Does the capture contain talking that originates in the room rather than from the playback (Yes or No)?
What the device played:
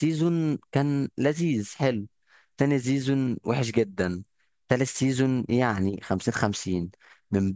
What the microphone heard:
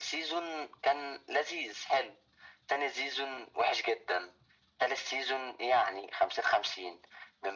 No